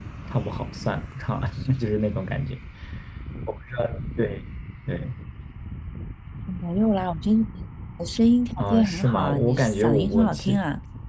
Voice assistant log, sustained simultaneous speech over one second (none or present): present